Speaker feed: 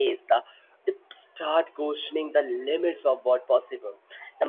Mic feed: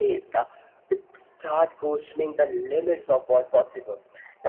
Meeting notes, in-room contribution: none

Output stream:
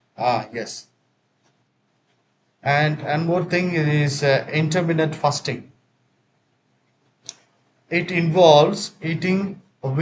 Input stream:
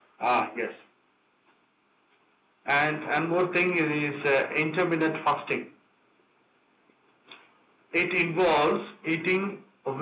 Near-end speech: none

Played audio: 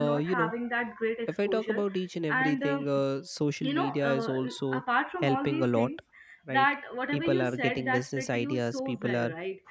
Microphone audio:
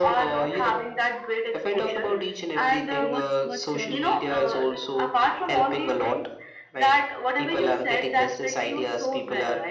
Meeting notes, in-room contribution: present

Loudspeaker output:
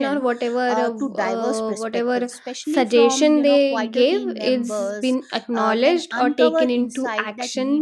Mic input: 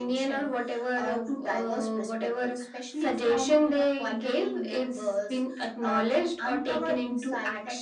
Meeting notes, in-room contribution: none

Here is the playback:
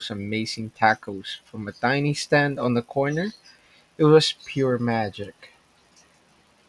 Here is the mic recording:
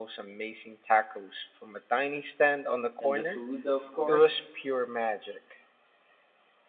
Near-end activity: present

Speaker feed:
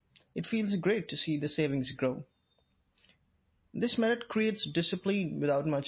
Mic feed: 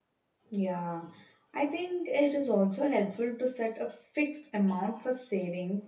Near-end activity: present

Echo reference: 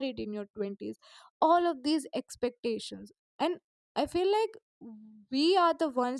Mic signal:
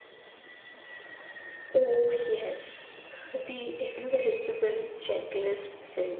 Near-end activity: present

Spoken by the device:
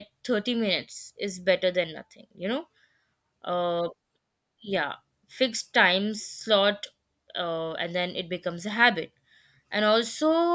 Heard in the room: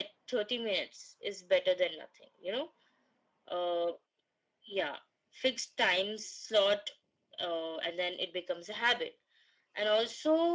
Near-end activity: none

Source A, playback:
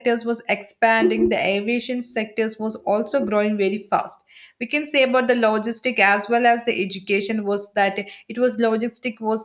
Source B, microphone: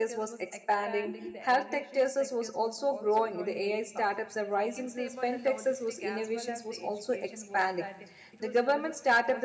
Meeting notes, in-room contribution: present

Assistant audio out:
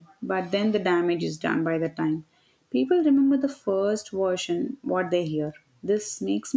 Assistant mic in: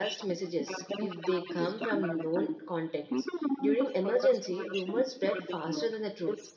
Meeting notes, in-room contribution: present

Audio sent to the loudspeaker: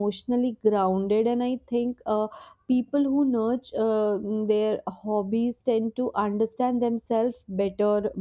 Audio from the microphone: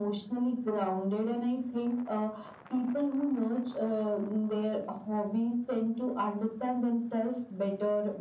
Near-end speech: none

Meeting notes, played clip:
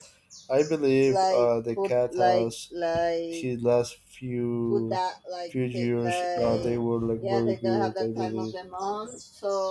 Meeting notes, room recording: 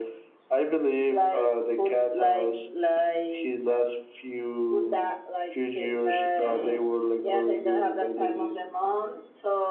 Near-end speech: none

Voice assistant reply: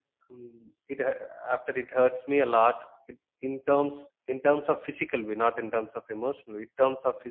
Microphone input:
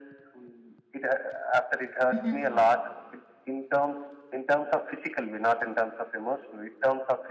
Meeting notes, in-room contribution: present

